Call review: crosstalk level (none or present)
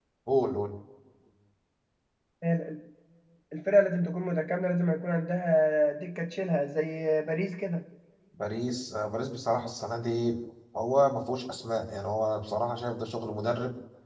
none